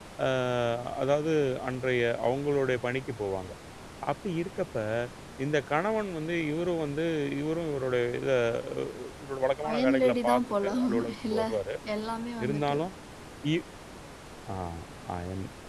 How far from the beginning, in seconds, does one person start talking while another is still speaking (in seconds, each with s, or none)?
9.7 s